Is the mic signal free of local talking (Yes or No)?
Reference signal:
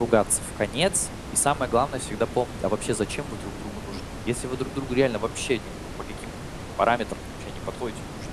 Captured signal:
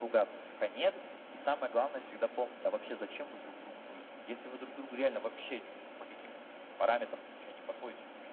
Yes